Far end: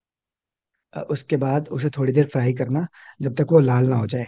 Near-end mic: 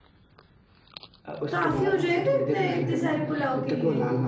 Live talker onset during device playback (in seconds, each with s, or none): 1.5 s